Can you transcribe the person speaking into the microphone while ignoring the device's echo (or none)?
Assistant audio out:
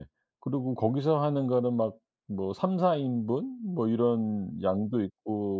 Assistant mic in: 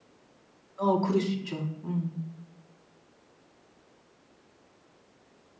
어 그럴 수 있죠. 음.